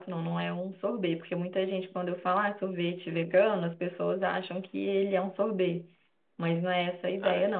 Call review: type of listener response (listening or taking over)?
taking over